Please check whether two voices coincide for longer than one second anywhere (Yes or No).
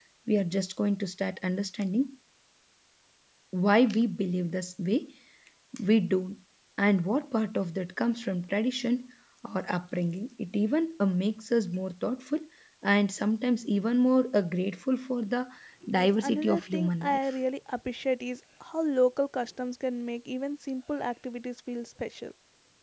Yes